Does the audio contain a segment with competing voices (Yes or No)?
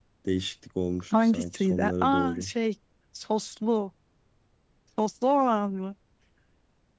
Yes